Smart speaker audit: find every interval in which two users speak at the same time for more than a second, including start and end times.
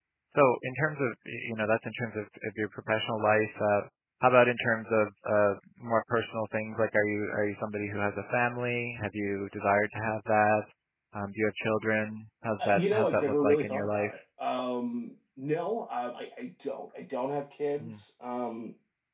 12.6-14.1

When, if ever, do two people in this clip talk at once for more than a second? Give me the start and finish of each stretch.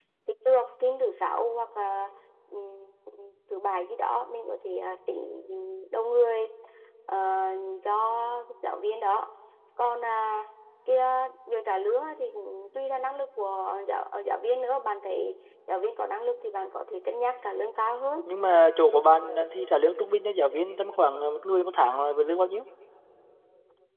none

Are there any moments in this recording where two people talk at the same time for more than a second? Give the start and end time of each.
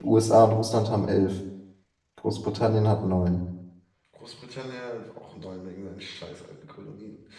none

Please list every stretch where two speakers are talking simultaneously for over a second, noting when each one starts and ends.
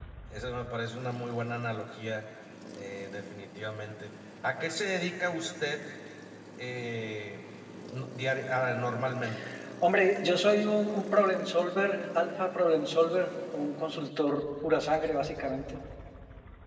none

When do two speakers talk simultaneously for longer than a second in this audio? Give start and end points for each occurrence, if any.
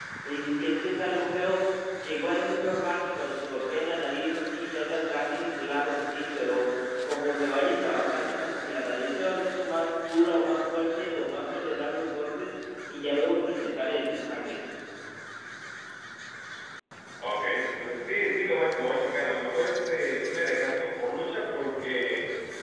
none

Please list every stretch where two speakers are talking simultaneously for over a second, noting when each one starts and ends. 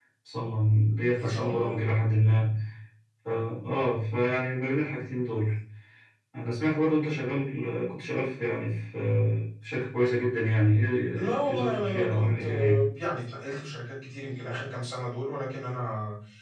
11.4-12.8

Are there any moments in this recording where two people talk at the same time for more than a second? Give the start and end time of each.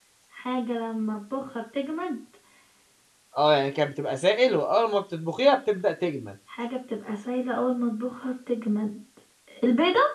none

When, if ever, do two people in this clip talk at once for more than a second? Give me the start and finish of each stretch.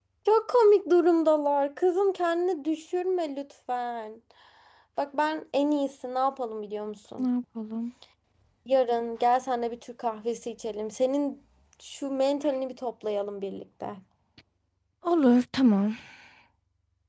none

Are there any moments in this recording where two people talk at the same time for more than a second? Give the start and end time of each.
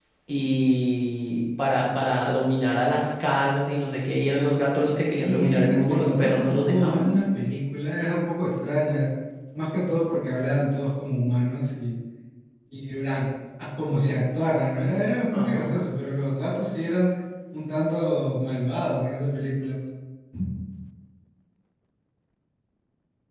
5.1-7.1

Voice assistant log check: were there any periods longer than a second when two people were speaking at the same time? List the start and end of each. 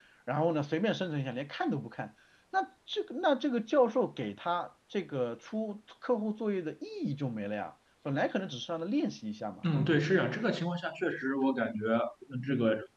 none

